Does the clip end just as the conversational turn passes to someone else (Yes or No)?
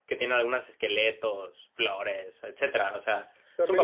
Yes